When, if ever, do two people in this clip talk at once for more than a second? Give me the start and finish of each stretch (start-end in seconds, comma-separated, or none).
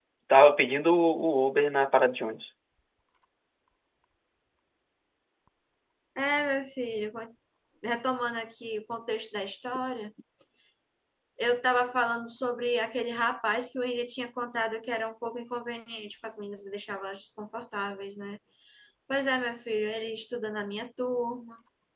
none